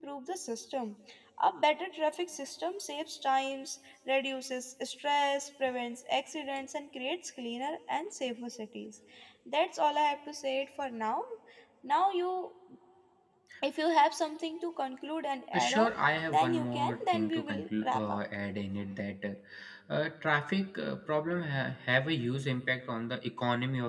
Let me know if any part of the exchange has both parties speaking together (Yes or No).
Yes